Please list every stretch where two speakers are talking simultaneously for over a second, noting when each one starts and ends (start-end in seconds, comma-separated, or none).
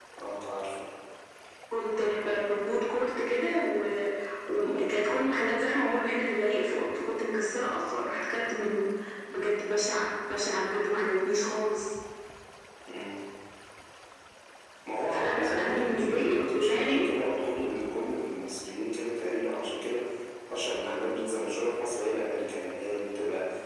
15.1-17.1